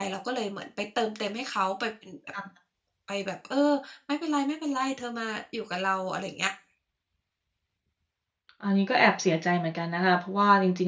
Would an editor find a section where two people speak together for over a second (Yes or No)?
No